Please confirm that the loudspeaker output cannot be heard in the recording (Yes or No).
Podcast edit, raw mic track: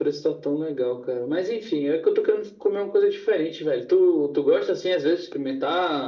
No